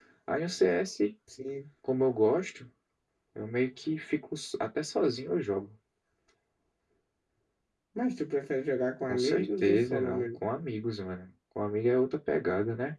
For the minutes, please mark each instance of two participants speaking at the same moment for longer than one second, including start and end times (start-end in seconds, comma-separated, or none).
9.1-10.4